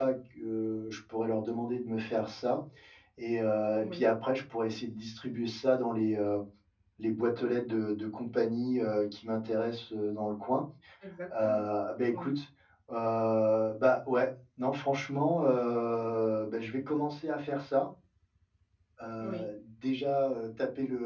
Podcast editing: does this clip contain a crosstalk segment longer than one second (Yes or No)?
No